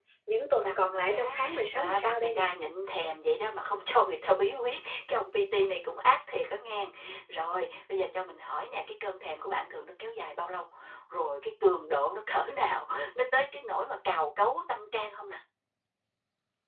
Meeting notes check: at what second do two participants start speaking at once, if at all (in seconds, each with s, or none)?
0.7 s